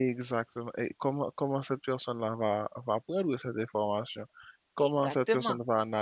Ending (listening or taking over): listening